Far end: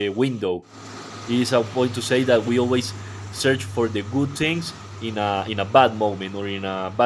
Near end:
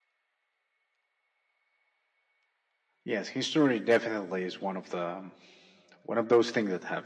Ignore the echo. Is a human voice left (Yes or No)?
Yes